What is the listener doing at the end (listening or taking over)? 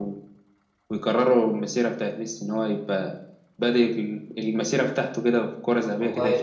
taking over